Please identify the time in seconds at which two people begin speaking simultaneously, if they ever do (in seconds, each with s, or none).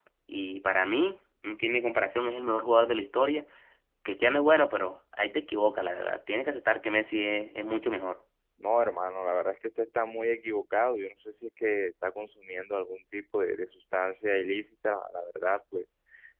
none